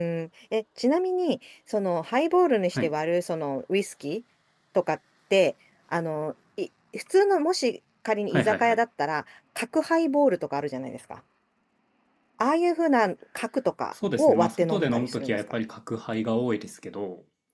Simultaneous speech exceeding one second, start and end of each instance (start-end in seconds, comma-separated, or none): 14.2-15.4